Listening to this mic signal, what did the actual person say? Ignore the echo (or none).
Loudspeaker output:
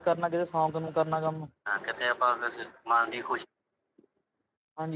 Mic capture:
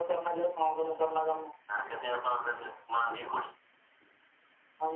none